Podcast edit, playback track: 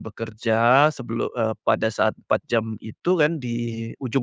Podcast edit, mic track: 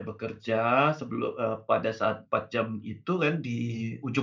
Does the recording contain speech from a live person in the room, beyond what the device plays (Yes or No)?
No